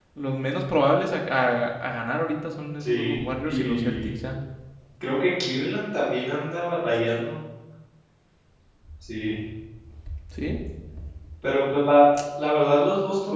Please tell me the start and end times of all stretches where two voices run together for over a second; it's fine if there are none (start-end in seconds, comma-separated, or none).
2.8-4.1